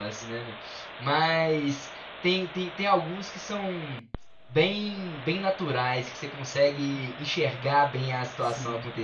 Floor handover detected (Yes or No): No